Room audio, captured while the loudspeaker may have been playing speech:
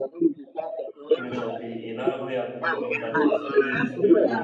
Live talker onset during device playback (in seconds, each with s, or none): 1.1 s